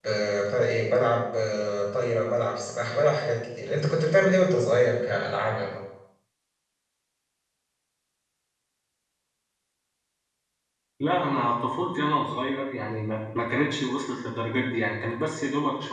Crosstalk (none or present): none